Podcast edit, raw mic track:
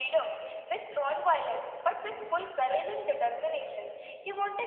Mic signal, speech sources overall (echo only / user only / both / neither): echo only